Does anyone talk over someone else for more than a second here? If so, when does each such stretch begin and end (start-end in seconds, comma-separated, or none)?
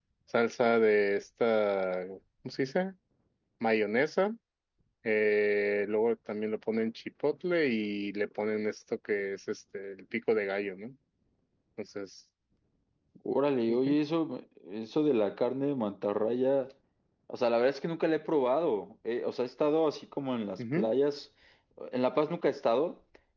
none